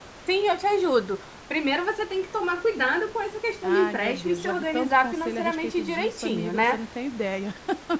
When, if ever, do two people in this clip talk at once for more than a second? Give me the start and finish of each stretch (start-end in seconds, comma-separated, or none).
3.6-6.8